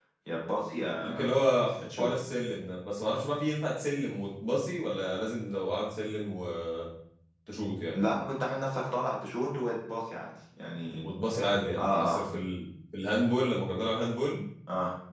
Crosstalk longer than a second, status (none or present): none